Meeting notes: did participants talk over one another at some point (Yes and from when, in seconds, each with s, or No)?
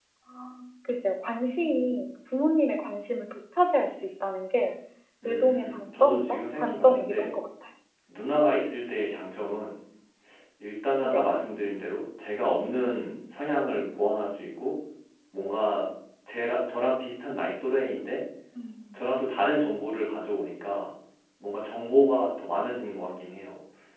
Yes, from 5.2 s